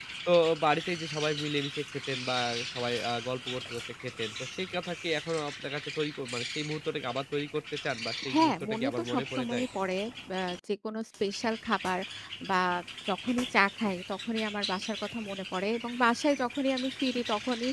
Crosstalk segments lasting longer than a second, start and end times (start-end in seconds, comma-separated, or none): 8.3-9.7